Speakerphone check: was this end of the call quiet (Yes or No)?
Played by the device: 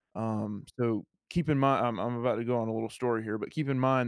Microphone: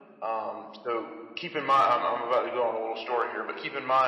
Yes